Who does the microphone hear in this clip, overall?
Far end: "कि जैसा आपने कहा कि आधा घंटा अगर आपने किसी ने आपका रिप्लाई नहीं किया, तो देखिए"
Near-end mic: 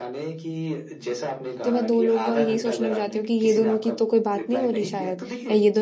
both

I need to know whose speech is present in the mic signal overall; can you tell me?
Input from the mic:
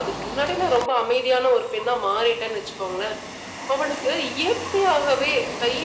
echo only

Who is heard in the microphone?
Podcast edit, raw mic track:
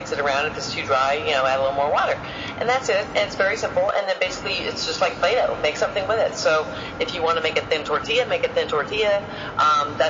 echo only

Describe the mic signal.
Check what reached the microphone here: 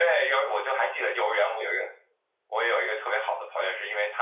echo only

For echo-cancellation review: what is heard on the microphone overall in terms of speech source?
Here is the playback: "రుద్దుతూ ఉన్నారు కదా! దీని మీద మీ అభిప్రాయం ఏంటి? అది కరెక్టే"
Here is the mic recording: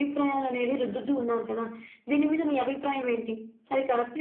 echo only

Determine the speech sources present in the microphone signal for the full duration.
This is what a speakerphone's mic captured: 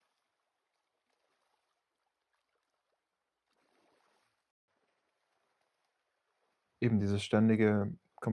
user only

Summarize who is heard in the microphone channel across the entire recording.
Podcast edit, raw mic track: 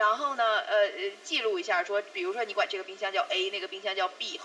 echo only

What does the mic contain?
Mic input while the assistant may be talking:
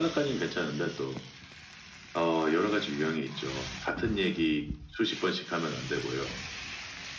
echo only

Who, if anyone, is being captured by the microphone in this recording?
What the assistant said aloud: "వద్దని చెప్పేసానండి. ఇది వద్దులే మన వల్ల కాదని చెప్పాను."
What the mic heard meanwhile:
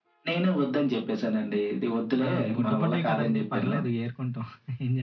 both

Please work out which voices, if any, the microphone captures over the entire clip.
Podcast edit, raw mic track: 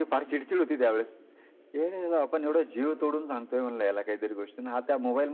echo only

